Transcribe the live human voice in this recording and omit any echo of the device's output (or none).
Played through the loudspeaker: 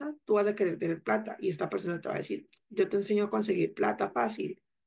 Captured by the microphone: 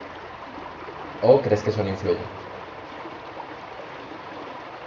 ¿O crees que eso no influye?